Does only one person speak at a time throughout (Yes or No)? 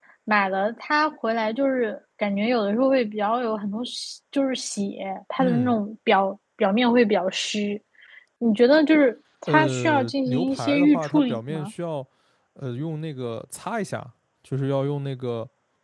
No